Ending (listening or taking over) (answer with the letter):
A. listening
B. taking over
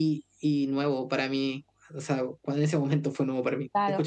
B